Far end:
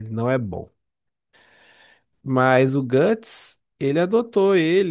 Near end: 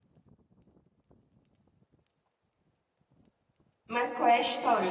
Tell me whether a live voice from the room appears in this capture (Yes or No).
Yes